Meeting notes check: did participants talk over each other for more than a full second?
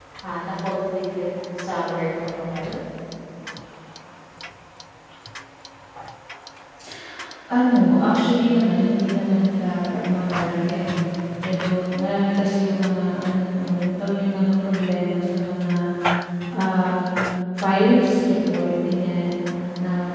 No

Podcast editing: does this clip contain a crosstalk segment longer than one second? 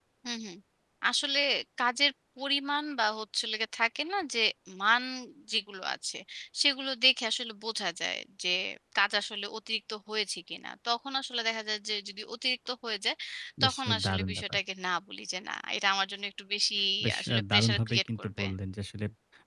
Yes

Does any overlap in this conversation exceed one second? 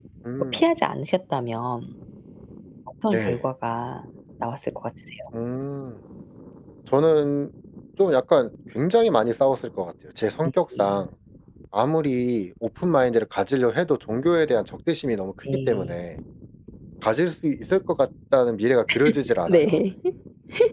No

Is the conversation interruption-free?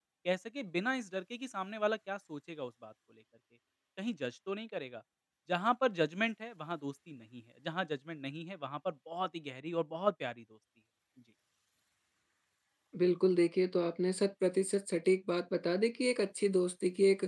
Yes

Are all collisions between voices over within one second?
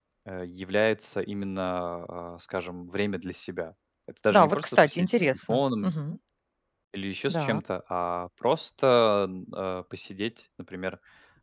No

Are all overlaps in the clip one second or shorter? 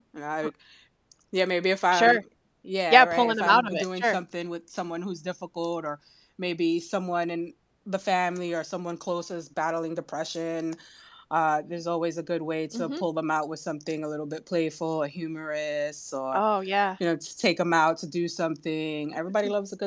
No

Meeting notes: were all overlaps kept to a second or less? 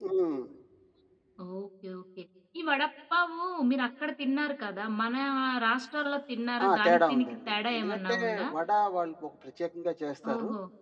No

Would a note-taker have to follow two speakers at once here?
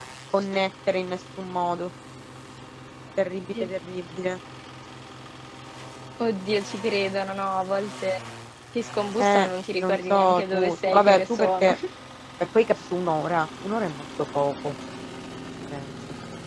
Yes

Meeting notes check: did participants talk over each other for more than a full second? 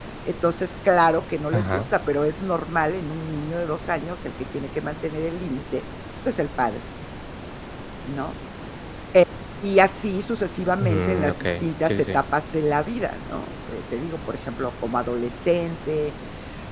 Yes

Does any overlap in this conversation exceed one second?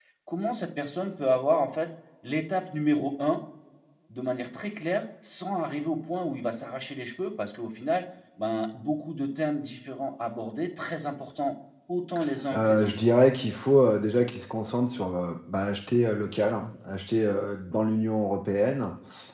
No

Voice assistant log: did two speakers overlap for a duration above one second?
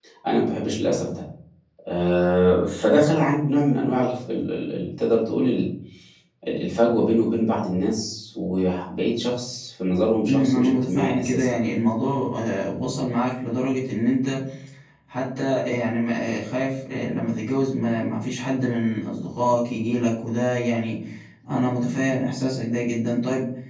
Yes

